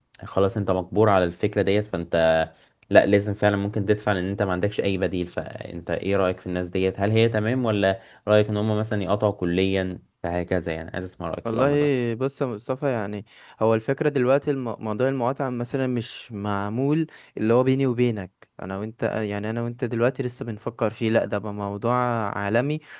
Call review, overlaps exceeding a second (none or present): none